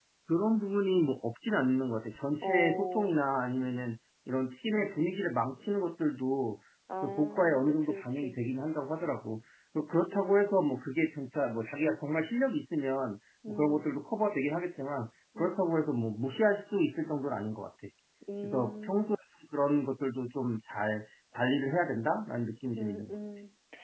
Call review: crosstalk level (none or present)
present